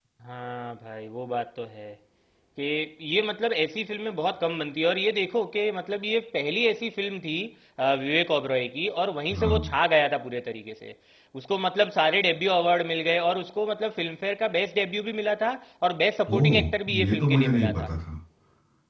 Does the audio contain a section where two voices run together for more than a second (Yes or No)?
Yes